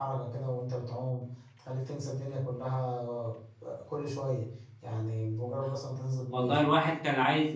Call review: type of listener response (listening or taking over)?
taking over